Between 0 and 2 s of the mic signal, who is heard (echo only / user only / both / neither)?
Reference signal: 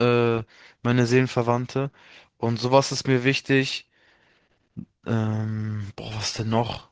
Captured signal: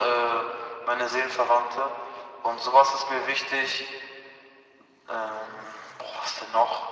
echo only